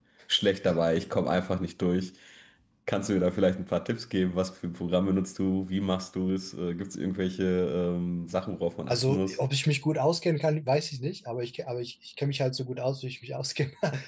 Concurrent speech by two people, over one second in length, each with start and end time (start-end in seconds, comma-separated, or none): none